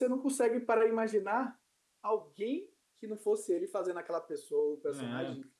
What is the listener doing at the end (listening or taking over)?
taking over